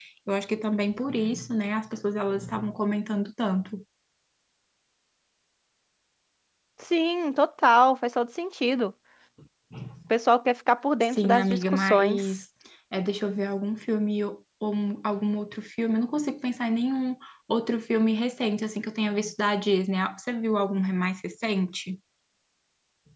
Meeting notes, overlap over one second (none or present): present